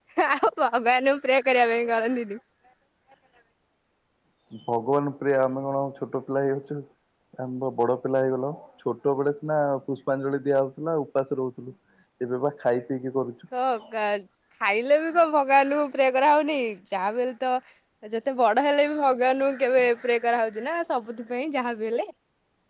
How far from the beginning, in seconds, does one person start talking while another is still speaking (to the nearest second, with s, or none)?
none